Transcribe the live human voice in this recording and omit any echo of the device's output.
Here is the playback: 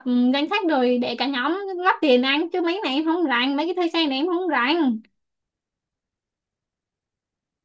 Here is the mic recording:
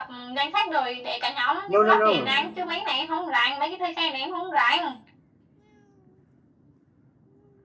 no no no

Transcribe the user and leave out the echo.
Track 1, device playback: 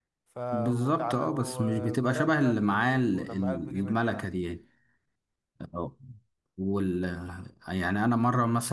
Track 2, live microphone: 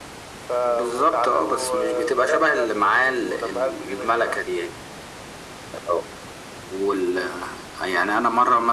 none

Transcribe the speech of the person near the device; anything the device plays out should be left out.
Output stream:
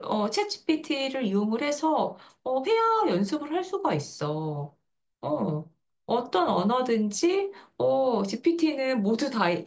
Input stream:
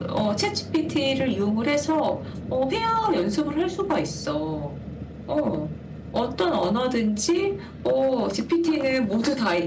none

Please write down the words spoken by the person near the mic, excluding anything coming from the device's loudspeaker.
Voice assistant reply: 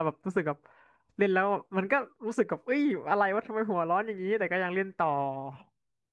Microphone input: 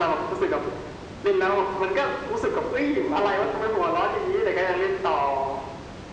none

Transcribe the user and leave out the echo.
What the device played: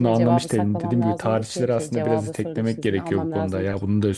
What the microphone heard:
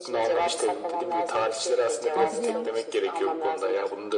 Hadrian,

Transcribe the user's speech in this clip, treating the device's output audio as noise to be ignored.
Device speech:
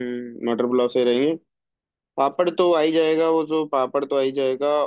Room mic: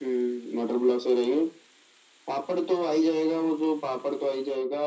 none

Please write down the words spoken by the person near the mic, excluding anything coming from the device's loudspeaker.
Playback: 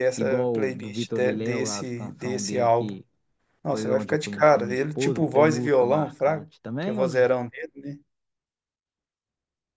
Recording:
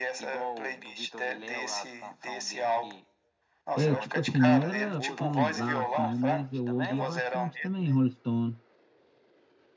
É, tipo assim, não era fanzaço, não, mas eu ouvia bastante também, Rolling Stone.

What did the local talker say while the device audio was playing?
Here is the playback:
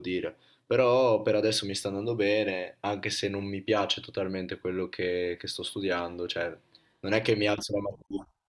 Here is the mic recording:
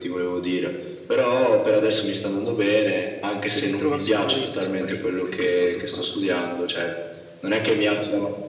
se mi trovassi male io non saprei che cos'altro fare.

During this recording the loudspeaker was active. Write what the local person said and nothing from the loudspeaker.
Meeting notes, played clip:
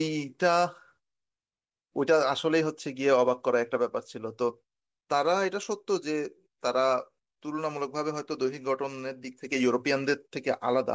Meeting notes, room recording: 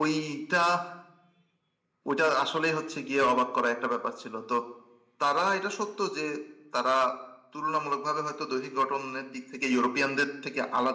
none

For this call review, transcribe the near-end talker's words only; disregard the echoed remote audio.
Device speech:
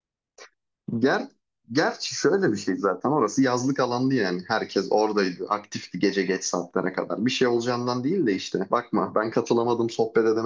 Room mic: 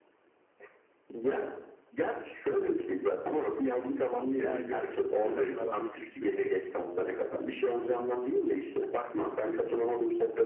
Ay yolda giderken arabayı sis çöktü.

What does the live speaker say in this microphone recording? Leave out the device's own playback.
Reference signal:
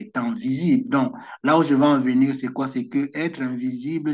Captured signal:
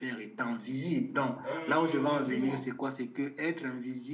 Euh, bah, dis-moi,

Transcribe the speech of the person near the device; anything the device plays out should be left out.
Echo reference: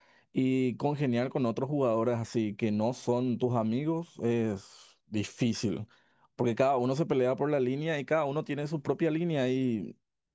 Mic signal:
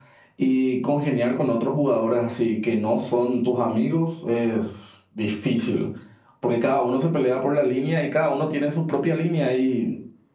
none

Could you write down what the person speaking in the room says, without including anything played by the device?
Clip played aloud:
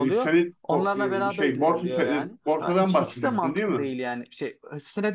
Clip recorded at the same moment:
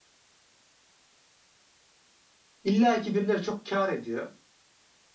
illaki birileri çok kâr ediyor.

